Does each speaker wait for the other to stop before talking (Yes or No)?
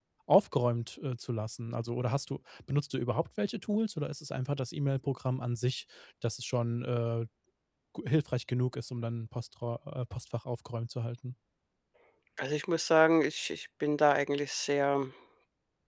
Yes